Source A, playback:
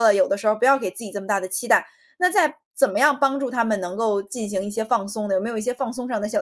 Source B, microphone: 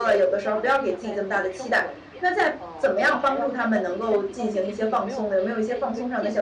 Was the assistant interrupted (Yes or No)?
Yes